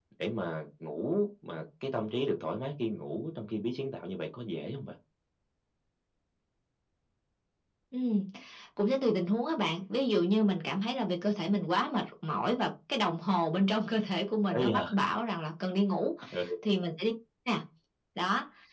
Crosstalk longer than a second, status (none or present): none